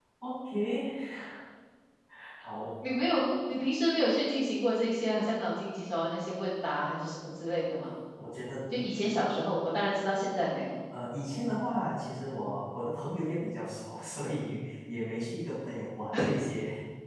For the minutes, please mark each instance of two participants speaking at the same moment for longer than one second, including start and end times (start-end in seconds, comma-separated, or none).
none